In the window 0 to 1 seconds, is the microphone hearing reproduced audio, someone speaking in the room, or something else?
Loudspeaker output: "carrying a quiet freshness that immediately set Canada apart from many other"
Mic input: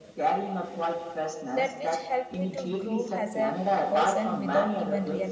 echo only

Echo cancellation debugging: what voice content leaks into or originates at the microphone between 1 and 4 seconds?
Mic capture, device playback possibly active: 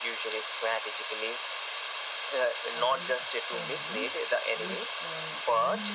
both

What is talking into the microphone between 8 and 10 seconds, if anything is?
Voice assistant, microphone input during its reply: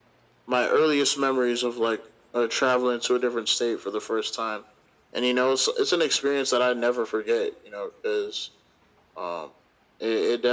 echo only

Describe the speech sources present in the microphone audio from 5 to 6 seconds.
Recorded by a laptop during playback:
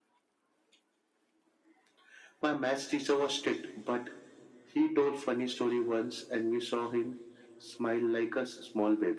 echo only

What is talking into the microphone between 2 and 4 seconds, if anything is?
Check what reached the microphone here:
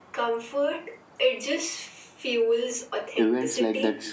both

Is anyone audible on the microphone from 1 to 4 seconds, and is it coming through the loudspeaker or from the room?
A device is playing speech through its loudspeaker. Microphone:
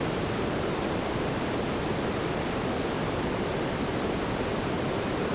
neither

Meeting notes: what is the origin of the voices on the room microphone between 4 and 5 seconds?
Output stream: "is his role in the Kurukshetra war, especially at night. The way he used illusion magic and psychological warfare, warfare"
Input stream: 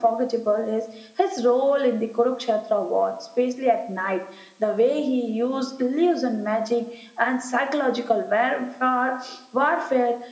echo only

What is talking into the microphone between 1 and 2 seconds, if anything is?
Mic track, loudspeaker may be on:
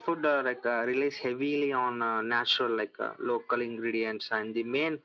echo only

